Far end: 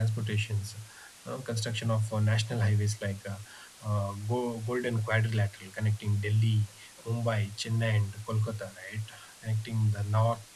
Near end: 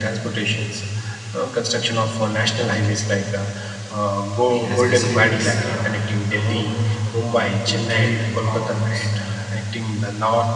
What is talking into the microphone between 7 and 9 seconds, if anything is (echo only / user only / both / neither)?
both